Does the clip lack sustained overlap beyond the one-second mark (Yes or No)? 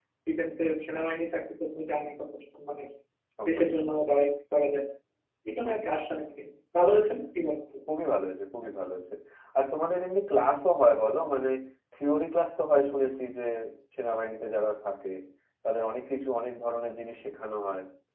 Yes